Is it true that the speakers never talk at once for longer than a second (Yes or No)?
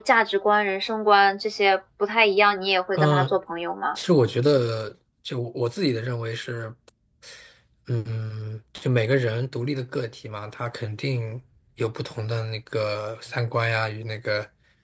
Yes